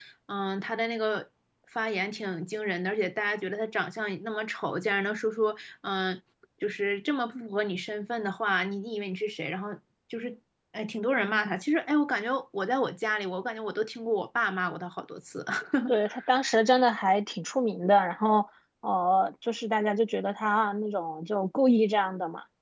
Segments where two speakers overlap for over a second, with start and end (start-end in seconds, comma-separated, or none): none